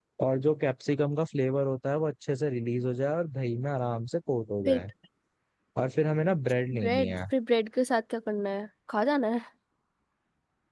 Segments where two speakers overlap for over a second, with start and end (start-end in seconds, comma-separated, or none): none